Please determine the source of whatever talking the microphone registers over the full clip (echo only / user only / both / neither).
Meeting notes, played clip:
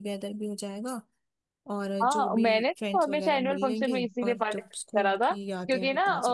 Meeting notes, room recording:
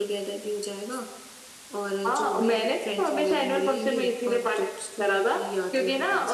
echo only